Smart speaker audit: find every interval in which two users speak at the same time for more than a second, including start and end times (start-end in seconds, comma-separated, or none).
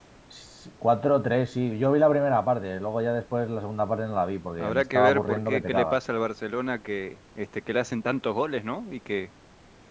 4.6-6.0